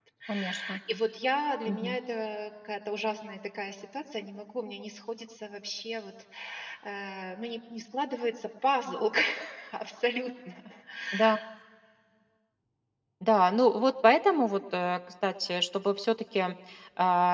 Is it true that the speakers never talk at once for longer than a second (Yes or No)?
Yes